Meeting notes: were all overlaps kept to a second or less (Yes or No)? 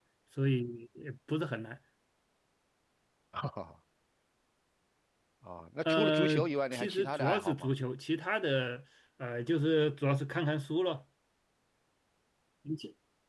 No